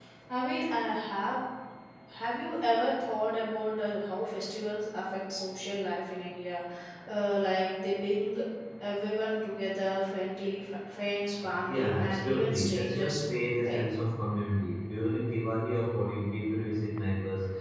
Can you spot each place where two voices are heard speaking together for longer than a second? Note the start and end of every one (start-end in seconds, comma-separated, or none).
11.7-13.8